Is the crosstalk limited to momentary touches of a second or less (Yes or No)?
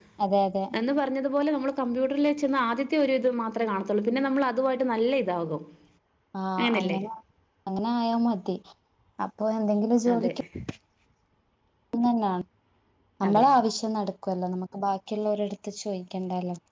Yes